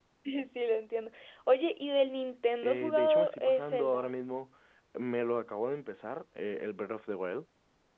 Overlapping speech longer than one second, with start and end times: 2.6-4.1

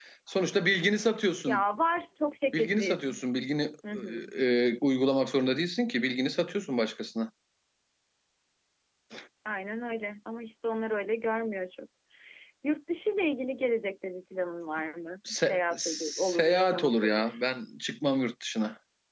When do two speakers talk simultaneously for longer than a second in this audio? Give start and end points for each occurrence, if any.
15.5-17.4

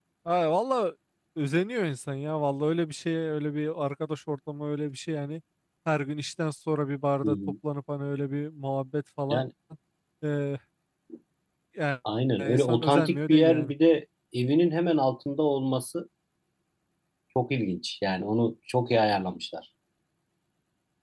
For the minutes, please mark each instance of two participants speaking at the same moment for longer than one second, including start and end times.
12.4-13.7

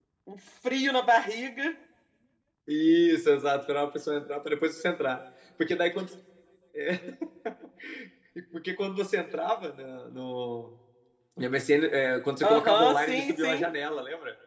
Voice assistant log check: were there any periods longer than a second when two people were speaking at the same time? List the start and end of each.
12.4-13.7

